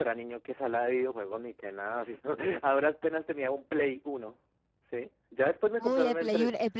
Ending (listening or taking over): taking over